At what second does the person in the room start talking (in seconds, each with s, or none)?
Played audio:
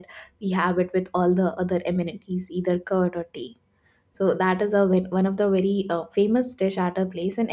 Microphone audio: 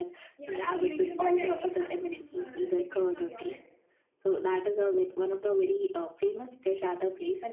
0.4 s